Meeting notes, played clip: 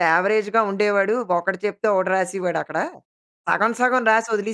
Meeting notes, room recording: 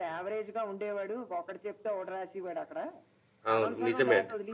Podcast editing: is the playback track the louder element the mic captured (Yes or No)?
No